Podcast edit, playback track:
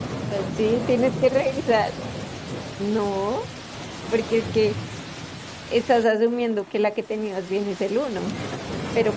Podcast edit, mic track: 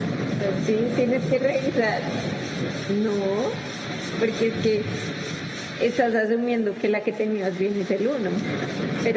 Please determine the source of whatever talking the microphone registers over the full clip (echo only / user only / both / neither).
echo only